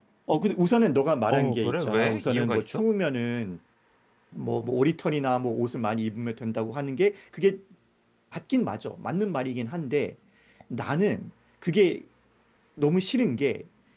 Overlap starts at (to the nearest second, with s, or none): 1 s